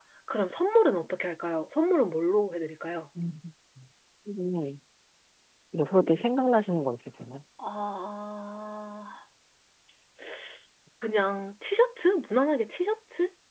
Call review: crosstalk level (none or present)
none